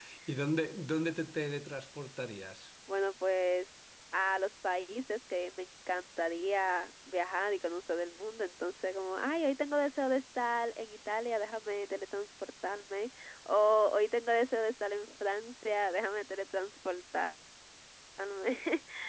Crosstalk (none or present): none